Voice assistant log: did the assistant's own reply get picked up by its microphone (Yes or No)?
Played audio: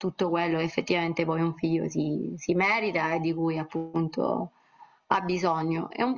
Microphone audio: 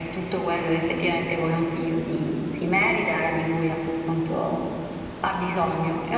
Yes